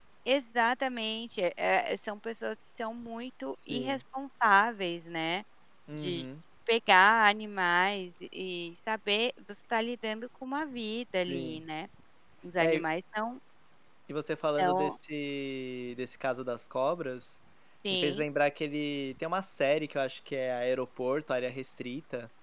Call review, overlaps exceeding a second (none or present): none